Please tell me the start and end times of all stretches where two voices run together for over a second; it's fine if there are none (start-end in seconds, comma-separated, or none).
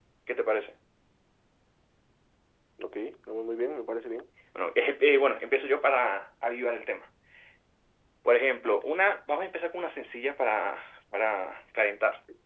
none